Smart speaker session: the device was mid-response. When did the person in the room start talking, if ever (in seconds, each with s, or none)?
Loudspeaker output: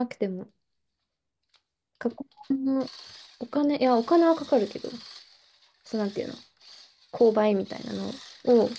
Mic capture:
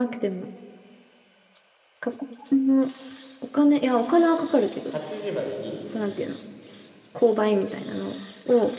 4.9 s